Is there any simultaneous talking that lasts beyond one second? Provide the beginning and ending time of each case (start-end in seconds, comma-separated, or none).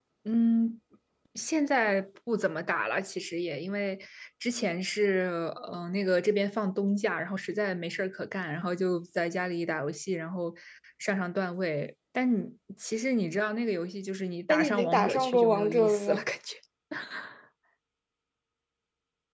14.5-16.2